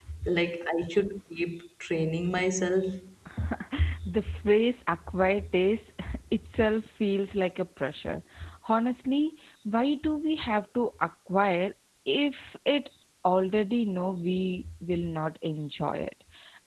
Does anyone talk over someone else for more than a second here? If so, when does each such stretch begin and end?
none

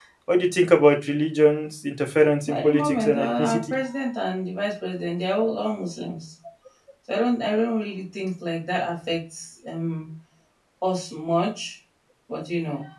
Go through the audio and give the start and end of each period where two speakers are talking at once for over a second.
2.5-3.7

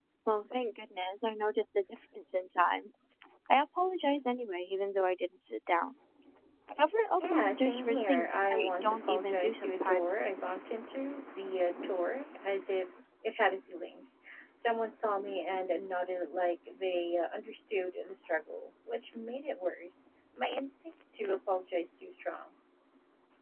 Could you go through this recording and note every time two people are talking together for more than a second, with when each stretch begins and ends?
7.3-10.2

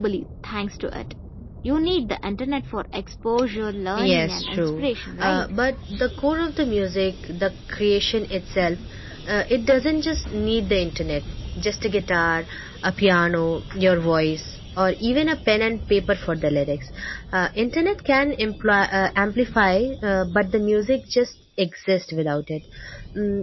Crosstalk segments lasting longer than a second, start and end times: 4.0-5.4

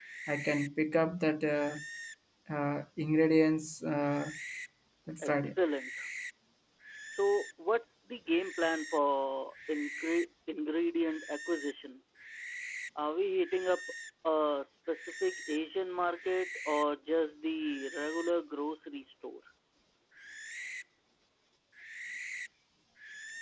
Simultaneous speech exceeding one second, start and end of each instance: none

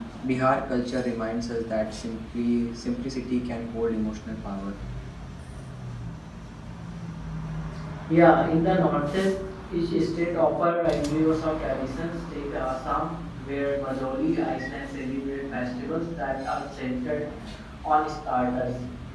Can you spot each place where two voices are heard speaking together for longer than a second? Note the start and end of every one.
none

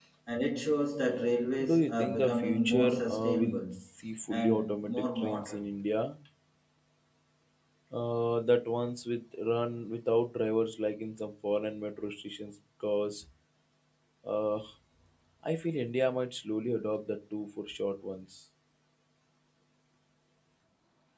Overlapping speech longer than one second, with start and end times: 1.6-3.6, 4.3-5.7

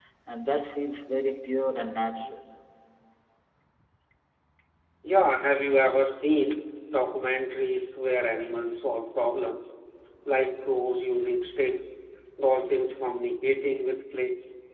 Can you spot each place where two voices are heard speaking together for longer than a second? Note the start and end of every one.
none

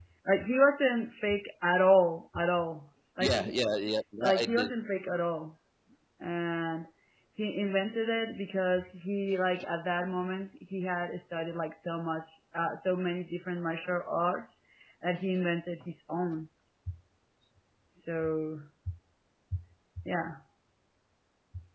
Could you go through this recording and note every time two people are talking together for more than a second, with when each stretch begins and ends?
none

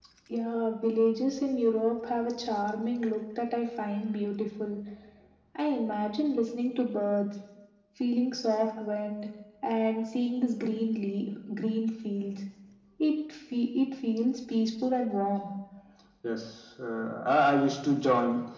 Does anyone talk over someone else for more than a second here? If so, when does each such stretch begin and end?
none

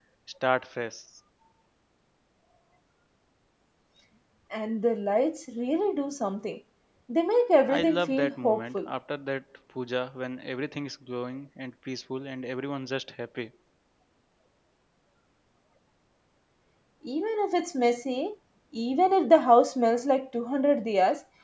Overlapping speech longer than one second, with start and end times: 7.7-8.9

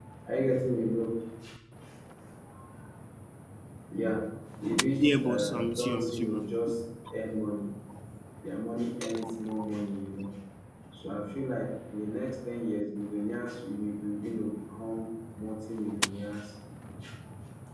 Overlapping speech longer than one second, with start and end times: 5.0-6.4

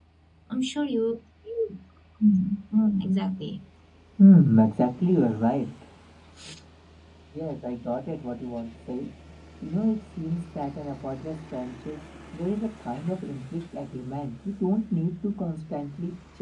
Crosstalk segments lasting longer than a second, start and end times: none

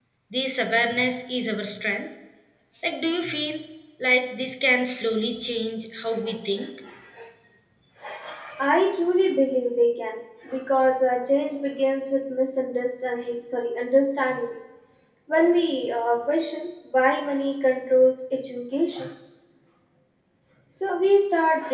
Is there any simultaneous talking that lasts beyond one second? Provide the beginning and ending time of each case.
none

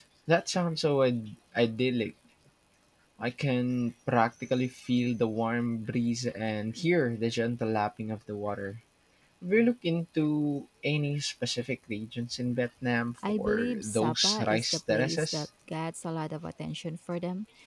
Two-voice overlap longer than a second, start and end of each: 13.3-15.5

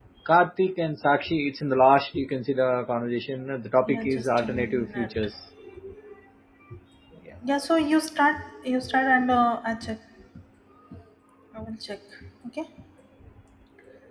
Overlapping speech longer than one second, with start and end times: 3.9-5.2

